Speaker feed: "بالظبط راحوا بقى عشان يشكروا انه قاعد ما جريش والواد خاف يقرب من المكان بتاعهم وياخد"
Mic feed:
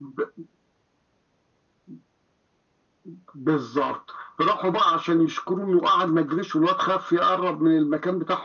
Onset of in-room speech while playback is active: none

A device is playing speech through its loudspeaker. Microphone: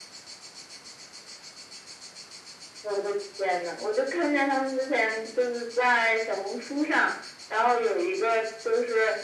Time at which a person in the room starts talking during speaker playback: none

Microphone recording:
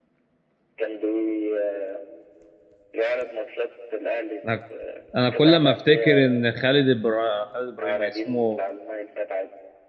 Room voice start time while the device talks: 4.5 s

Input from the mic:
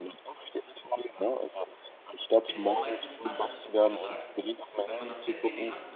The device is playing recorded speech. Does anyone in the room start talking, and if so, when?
2.5 s

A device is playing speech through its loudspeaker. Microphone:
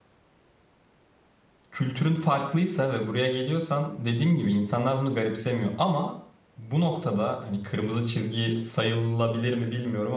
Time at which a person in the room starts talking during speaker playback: 1.7 s

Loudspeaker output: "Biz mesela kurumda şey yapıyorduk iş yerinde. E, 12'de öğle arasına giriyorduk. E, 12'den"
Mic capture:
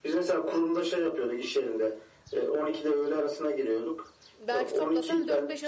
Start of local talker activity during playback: 4.4 s

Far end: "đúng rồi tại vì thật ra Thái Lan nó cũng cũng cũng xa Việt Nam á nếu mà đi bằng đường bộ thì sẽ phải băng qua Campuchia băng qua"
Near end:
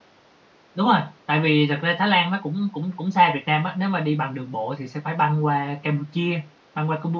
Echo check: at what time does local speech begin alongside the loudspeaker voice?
none

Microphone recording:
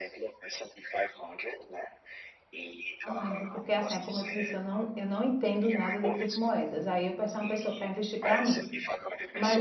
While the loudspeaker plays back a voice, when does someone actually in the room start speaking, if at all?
3.0 s

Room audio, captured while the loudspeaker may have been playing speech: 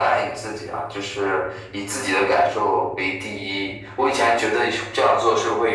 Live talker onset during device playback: none

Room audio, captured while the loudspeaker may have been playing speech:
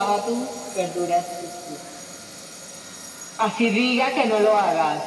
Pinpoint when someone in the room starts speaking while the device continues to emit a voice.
none

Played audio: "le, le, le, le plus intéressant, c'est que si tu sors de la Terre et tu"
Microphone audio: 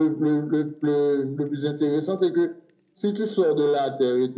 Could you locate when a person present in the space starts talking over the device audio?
none

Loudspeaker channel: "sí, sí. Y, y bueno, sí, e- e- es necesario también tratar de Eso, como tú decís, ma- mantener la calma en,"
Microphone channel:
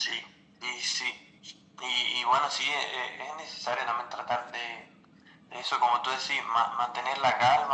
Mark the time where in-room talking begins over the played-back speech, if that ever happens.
none

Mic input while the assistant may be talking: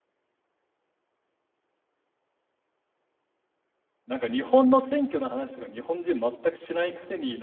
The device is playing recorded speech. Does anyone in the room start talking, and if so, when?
4.0 s

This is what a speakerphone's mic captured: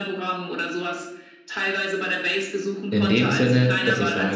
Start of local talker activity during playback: 2.9 s

